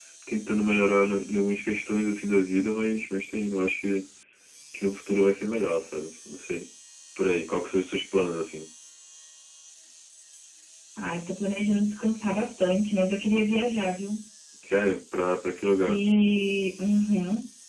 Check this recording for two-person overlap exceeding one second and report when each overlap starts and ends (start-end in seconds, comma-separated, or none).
none